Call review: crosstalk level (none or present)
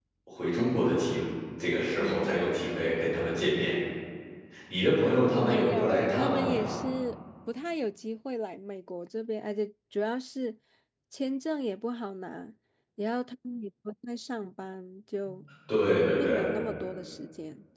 present